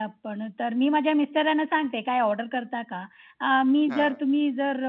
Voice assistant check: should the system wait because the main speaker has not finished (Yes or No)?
Yes